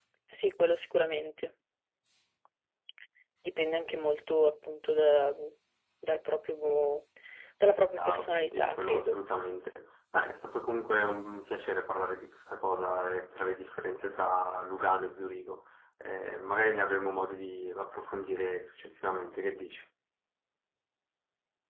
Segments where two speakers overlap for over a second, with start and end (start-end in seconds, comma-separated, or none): 8.0-9.2